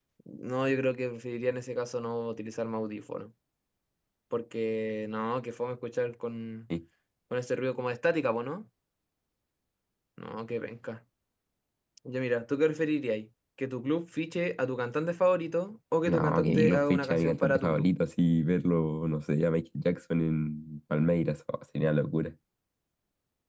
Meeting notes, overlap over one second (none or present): present